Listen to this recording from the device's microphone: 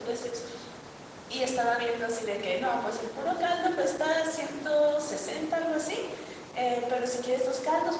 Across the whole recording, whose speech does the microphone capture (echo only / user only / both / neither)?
echo only